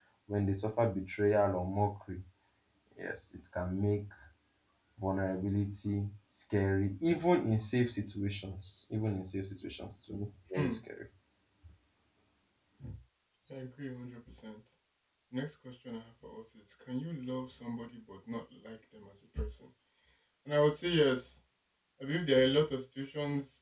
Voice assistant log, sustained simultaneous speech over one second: none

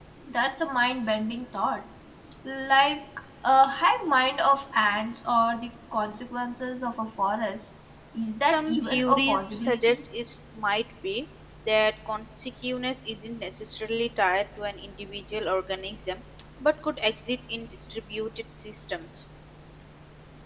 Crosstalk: present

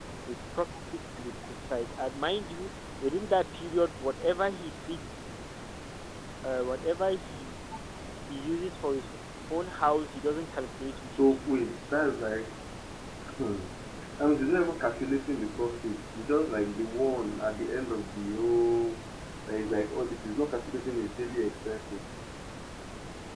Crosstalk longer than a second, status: none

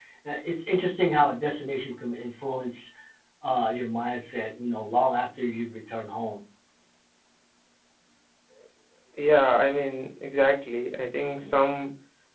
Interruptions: none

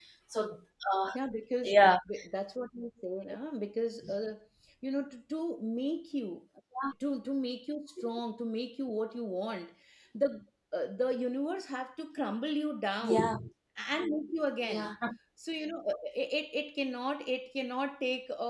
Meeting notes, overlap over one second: none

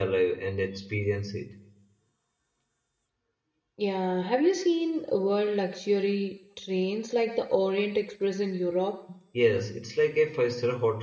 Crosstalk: none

